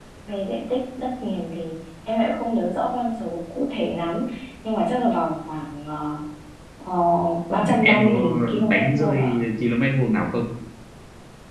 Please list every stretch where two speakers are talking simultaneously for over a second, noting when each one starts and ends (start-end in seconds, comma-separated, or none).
7.6-9.4